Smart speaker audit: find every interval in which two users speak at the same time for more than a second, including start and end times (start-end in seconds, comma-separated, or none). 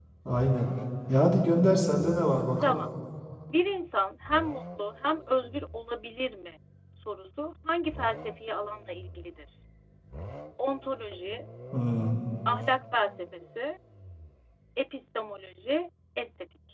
none